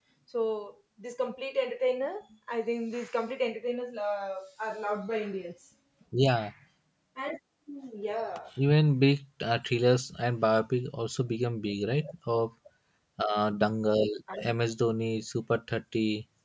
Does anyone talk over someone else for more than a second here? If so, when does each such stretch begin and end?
none

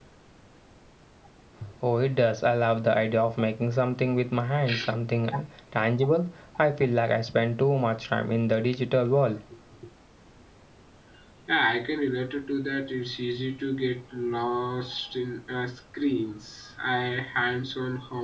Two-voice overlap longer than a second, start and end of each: none

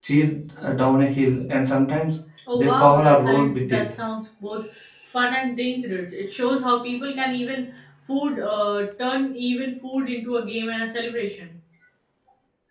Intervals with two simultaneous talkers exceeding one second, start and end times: 2.5-3.8

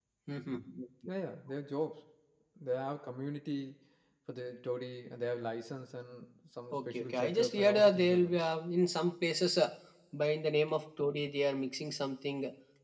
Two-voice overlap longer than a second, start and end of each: 6.7-8.4

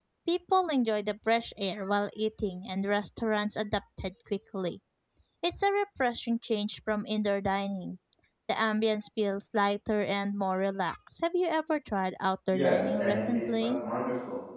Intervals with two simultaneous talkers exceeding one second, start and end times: 12.5-13.8

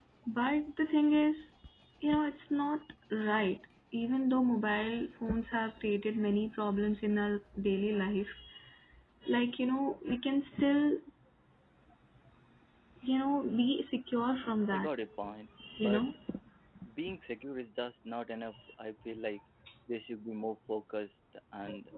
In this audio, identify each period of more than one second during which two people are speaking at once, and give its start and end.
none

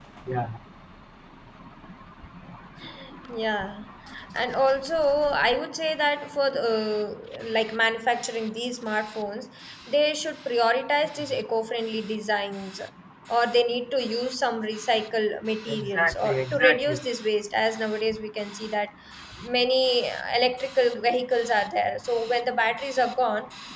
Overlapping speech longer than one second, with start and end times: 15.7-17.0

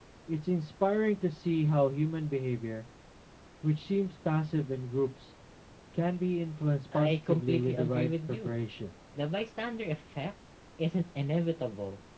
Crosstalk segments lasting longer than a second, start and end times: 6.9-8.6

